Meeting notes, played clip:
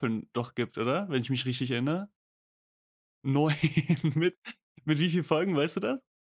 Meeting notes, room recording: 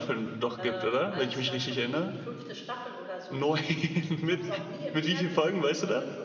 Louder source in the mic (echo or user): echo